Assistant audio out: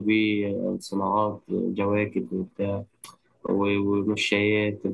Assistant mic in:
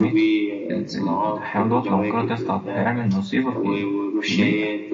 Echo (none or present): present